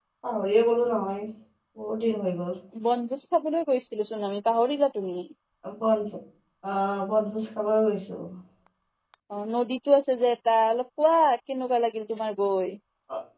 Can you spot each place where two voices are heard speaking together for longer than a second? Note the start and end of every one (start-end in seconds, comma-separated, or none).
none